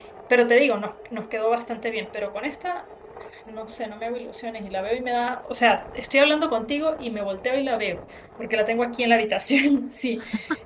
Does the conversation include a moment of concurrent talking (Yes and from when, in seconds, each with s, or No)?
No